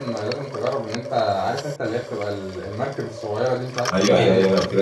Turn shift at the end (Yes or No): Yes